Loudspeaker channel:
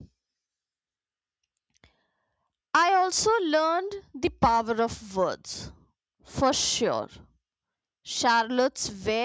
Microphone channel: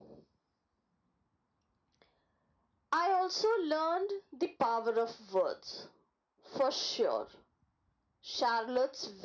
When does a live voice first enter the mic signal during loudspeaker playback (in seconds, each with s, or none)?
none